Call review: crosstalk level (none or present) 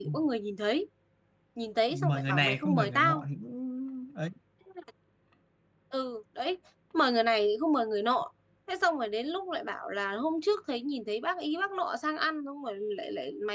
present